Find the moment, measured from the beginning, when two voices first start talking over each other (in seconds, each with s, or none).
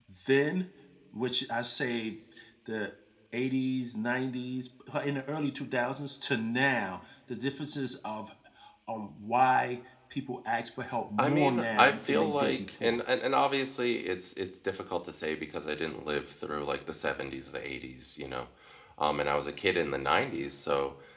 11.2 s